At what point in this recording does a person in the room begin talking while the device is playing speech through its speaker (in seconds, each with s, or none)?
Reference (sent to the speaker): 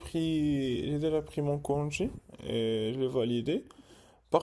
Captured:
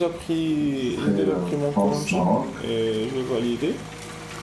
0.5 s